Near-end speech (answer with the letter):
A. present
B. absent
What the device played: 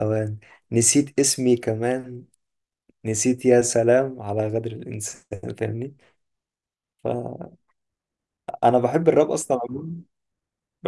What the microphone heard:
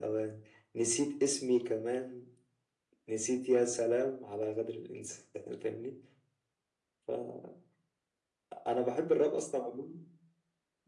B